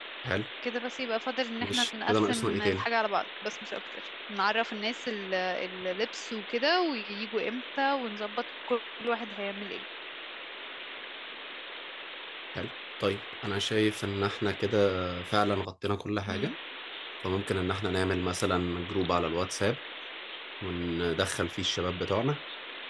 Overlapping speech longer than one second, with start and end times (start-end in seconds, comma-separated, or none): 1.6-2.8